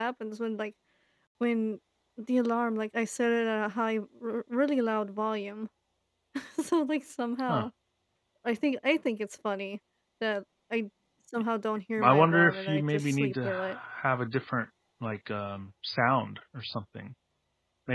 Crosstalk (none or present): present